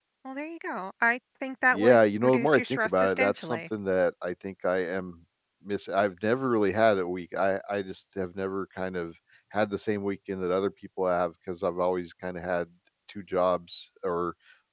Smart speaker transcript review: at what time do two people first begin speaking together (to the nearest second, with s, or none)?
2 s